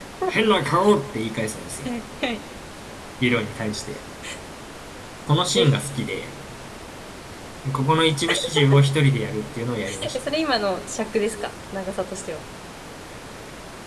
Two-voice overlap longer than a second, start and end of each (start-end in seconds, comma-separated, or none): none